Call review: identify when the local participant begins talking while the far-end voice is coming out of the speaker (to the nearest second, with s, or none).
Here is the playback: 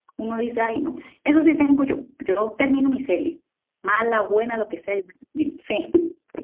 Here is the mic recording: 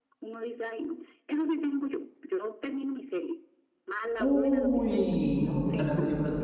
4 s